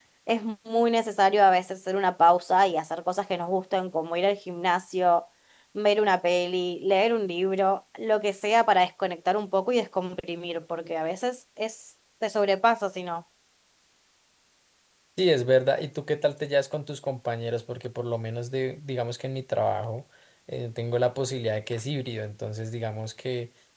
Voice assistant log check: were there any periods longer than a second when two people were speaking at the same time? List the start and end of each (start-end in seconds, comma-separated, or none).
none